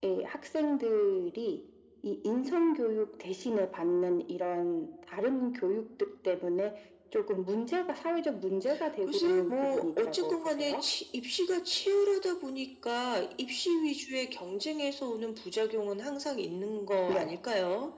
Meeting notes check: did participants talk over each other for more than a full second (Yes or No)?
Yes